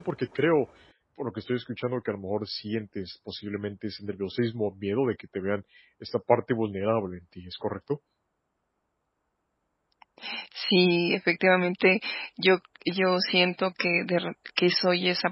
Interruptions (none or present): none